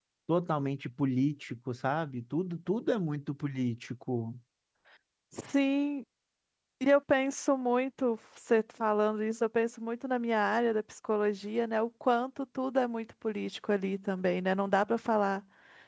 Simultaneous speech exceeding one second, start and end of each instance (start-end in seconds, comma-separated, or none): none